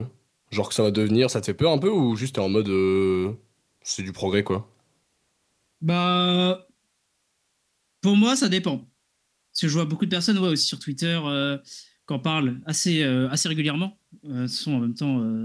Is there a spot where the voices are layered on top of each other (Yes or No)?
No